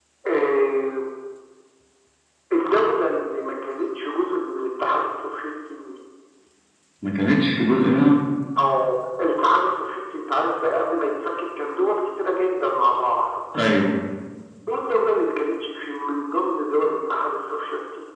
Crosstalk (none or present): none